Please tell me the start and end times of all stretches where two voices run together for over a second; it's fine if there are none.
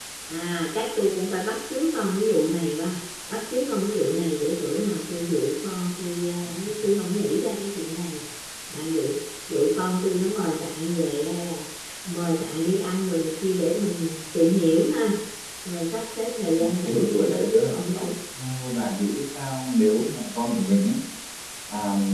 16.6-18.1

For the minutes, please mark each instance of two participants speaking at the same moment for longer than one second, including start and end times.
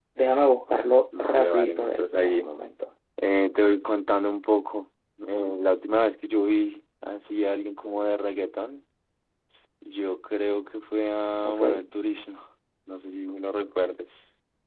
1.2-2.5

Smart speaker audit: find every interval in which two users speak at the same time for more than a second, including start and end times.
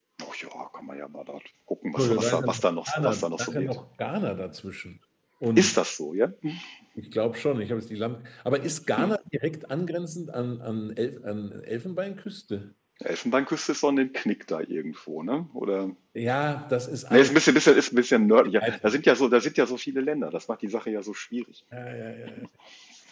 2.0-3.7

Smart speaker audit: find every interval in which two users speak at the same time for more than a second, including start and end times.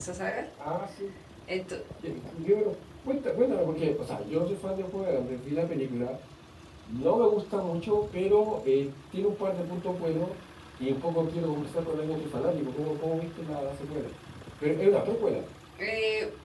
none

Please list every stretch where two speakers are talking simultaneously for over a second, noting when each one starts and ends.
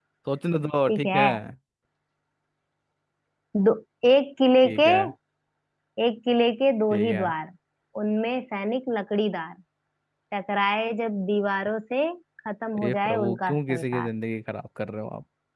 12.8-14.1

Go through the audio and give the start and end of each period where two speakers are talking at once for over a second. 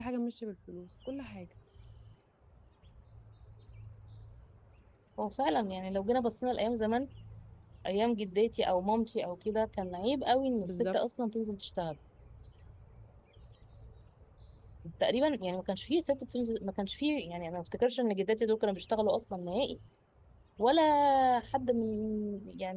none

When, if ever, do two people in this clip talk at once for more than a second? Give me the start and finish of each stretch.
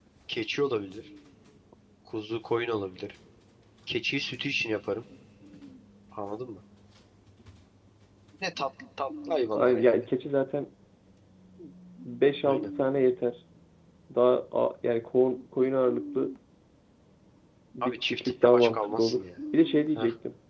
17.8-19.2

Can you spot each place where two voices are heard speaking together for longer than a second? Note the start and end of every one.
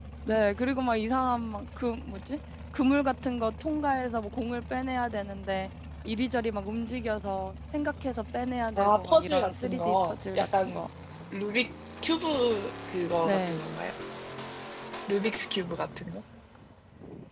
8.8-10.8

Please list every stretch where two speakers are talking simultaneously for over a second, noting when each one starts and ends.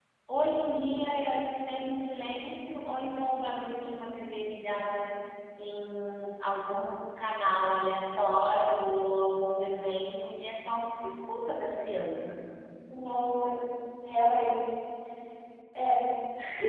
none

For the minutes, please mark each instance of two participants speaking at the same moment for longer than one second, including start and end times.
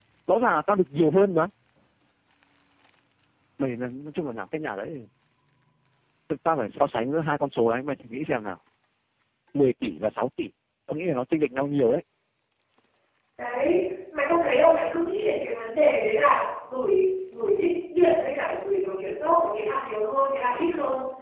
none

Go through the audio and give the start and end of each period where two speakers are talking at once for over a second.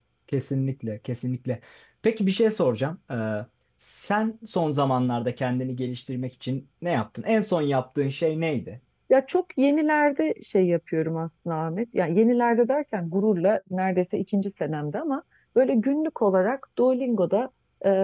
none

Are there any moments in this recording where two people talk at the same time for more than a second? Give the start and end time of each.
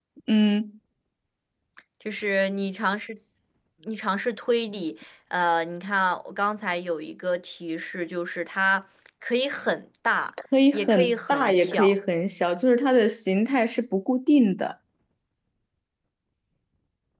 10.7-11.9

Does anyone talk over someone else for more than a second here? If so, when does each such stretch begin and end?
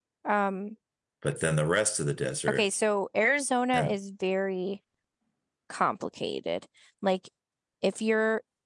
none

